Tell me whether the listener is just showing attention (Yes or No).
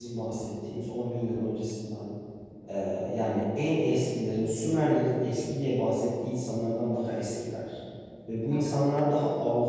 Yes